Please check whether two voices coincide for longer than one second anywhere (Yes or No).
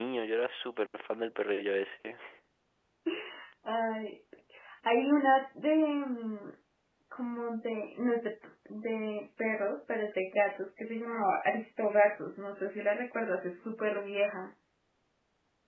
No